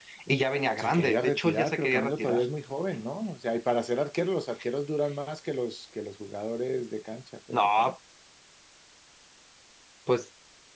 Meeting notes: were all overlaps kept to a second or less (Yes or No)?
No